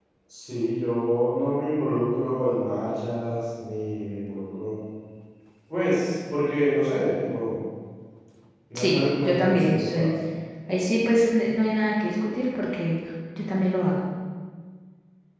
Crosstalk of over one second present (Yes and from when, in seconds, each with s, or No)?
Yes, from 8.8 s